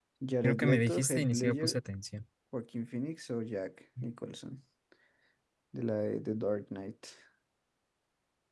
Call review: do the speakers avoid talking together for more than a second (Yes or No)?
No